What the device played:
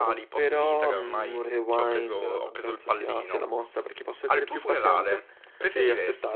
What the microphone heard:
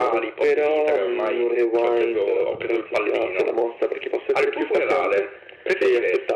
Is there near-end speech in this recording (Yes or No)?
No